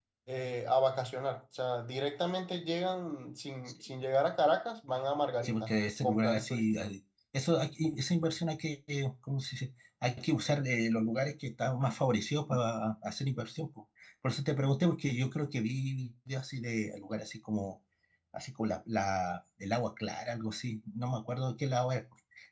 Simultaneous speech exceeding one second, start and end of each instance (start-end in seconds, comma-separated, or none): 5.4-6.9